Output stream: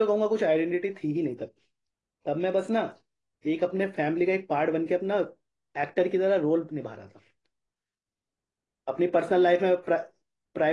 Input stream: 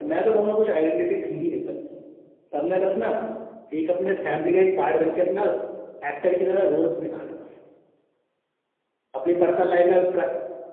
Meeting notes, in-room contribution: none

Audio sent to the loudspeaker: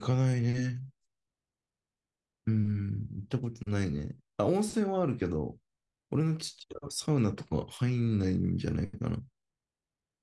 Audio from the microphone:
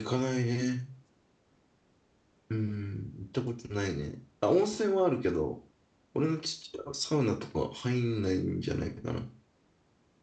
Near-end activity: none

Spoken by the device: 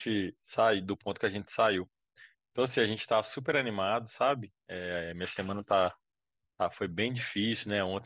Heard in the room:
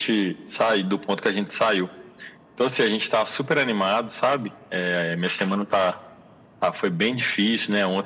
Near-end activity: none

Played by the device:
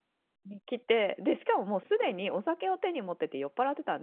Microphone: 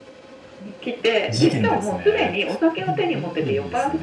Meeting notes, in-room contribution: present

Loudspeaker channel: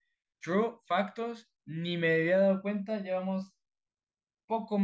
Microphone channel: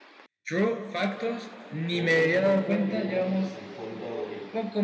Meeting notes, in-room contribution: present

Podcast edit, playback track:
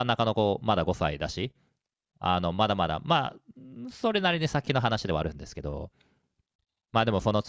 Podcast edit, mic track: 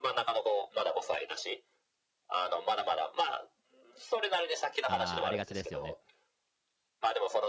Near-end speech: present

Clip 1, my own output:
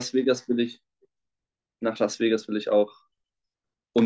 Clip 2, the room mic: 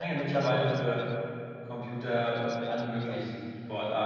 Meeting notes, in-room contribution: present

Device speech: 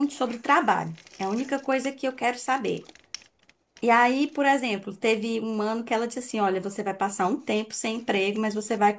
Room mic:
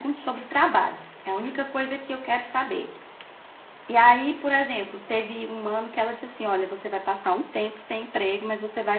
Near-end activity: none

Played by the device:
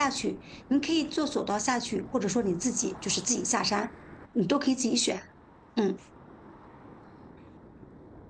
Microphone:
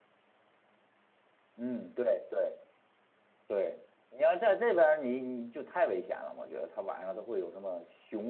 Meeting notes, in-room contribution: present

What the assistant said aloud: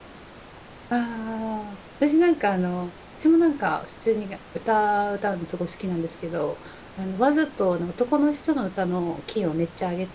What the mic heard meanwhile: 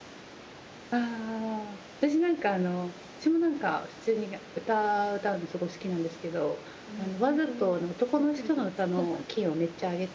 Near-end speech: present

